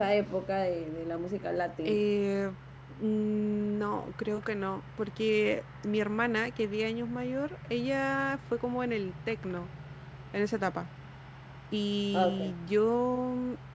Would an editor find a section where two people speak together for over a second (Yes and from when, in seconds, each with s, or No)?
No